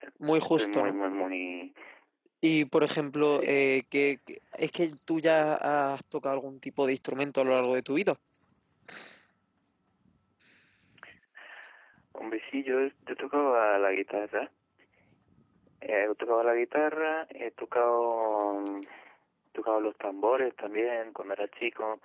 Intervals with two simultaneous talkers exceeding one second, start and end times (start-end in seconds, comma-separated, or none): none